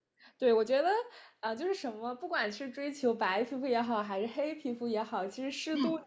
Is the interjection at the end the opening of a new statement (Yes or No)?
No